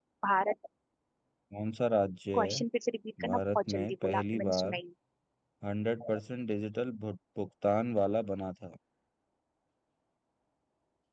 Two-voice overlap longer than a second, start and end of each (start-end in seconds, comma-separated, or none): 3.2-4.8